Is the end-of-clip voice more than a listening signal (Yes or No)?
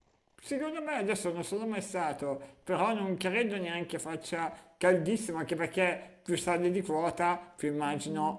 No